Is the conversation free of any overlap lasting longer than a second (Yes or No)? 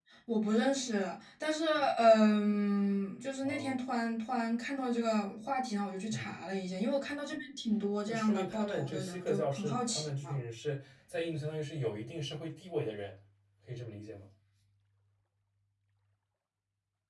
No